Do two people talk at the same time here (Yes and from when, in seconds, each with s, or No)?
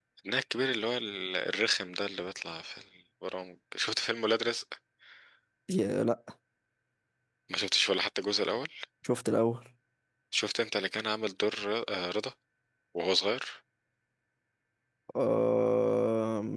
No